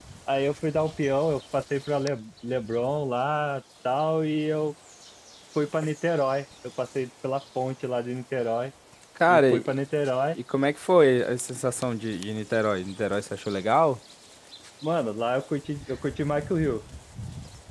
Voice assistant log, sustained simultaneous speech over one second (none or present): none